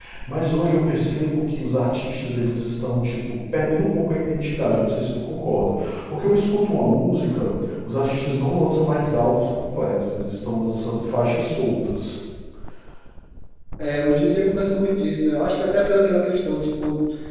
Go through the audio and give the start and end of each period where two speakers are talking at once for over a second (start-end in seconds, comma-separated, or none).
none